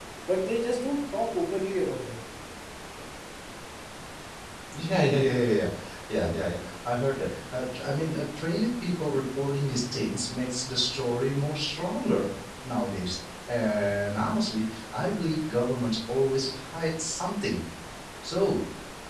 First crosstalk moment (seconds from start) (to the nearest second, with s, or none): none